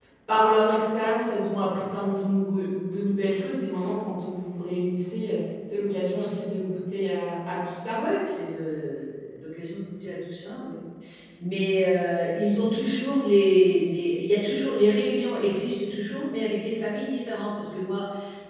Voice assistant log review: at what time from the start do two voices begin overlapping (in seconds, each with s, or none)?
none